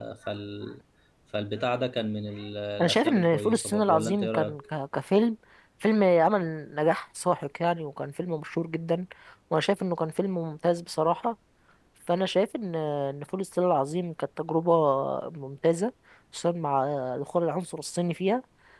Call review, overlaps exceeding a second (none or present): present